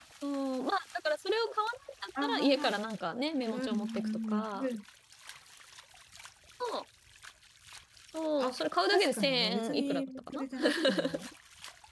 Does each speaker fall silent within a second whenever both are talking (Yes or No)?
No